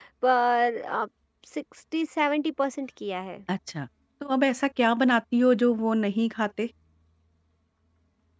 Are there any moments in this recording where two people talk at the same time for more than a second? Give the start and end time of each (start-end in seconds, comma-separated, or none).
none